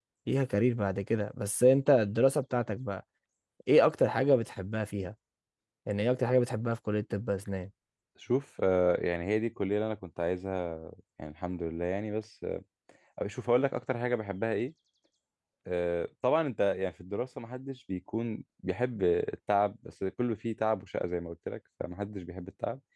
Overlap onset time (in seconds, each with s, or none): none